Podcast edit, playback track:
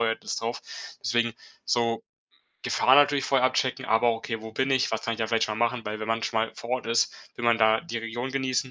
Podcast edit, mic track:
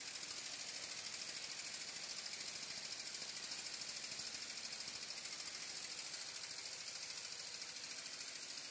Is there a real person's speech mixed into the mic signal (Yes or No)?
No